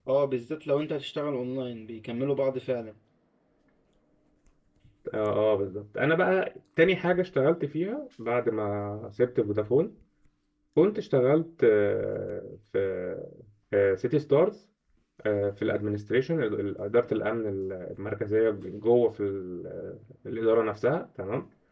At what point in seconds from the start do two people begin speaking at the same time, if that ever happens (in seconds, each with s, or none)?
none